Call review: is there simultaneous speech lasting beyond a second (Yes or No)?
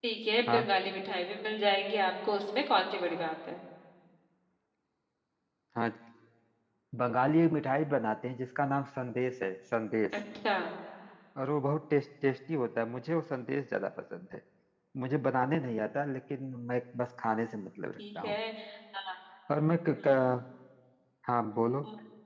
No